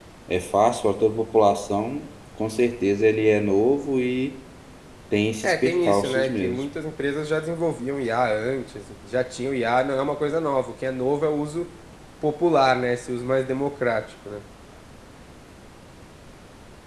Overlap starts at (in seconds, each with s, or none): 5.4 s